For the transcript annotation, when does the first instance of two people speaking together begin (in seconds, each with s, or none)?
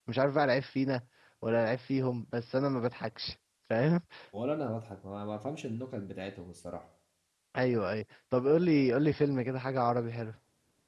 none